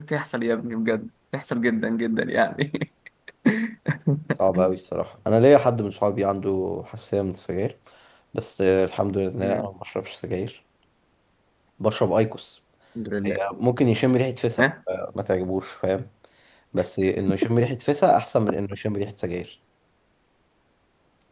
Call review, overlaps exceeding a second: none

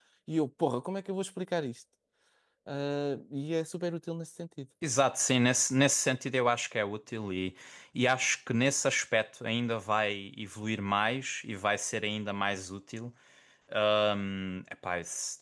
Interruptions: none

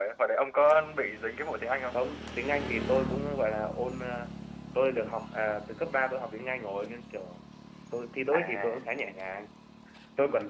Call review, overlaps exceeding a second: none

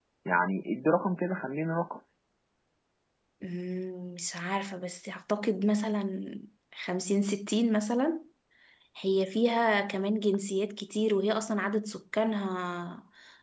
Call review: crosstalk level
none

